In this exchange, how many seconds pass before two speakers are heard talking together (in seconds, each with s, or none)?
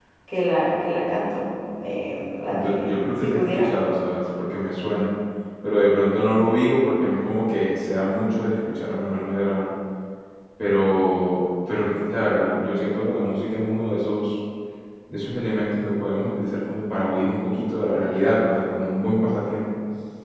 2.5 s